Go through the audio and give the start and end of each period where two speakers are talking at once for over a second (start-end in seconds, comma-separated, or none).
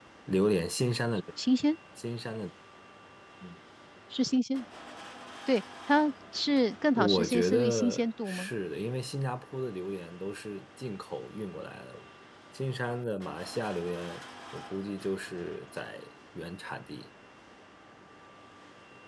6.9-8.5